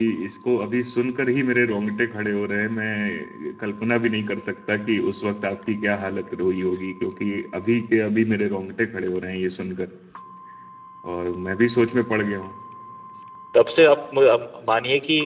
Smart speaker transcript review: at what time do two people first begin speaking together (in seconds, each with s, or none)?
none